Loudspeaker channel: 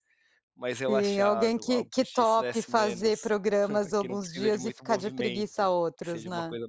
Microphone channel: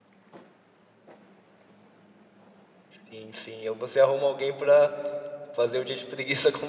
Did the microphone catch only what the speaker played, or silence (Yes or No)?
No